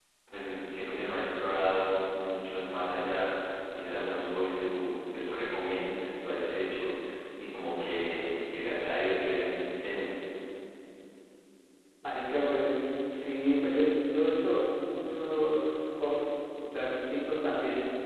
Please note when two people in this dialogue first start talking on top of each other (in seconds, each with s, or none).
none